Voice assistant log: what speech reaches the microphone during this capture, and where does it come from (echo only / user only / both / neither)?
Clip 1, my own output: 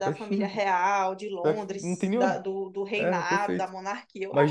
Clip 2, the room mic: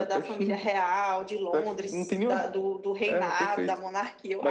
echo only